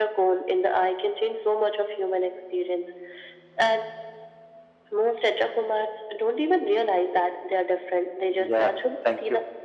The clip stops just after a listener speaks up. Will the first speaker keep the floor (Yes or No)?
No